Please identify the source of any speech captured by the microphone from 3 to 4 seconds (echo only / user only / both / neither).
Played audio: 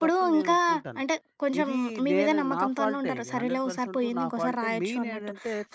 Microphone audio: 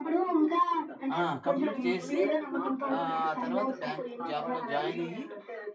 both